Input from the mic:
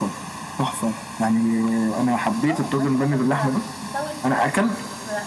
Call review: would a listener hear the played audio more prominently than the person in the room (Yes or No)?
Yes